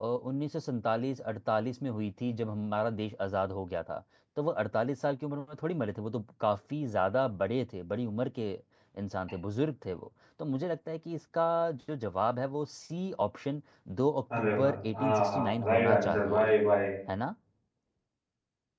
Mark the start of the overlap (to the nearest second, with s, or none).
14 s